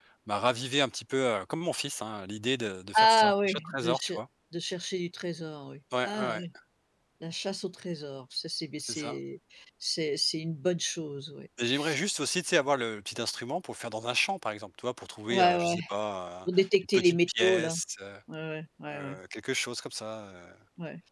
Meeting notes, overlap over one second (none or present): present